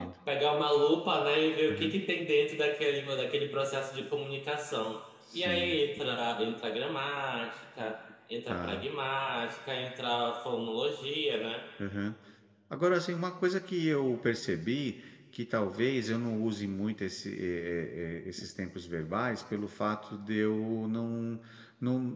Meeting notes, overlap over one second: none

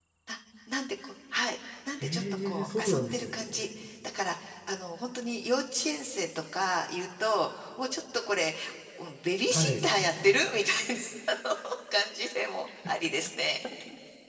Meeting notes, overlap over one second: present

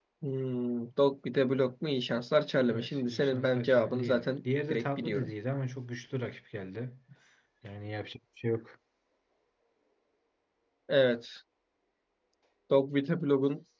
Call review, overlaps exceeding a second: present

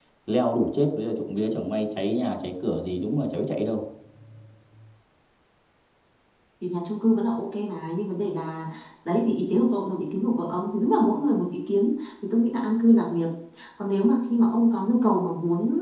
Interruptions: none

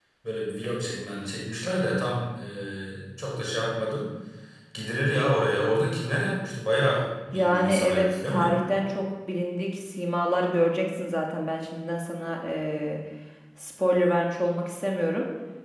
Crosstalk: present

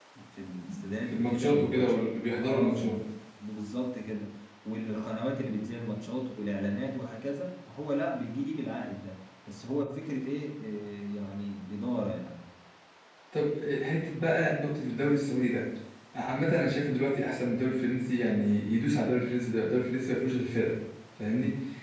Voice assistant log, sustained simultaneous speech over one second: present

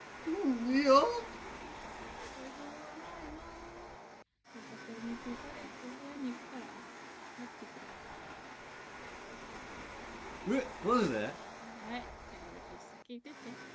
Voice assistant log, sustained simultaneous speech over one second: none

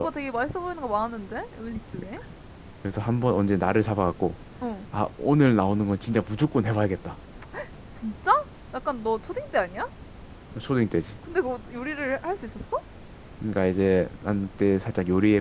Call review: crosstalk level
none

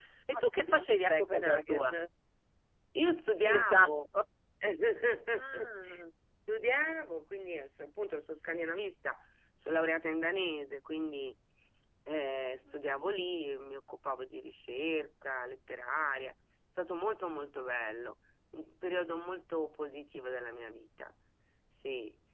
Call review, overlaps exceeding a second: present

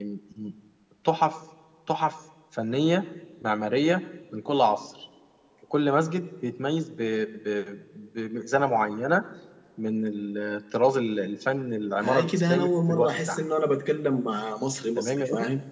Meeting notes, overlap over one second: present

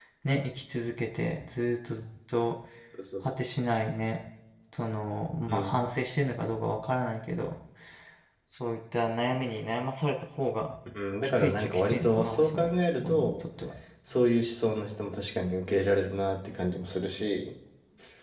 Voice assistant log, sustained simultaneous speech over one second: present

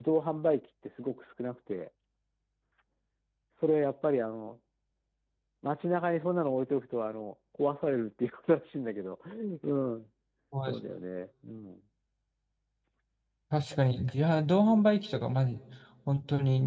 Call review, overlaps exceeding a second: none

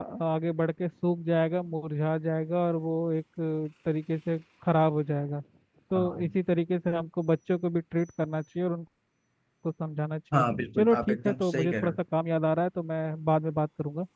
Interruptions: present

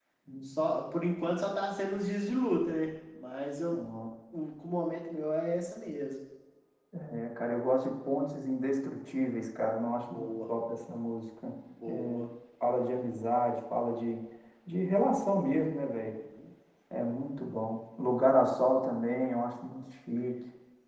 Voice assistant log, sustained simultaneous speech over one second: none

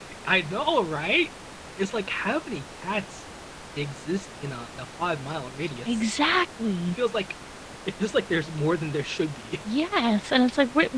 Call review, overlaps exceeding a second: none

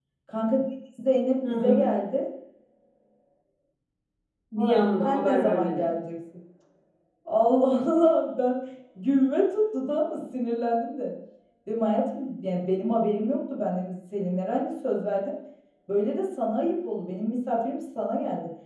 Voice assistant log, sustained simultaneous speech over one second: present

